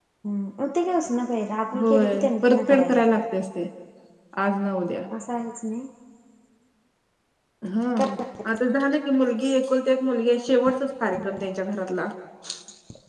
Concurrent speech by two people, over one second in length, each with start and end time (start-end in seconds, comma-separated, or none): 1.8-3.0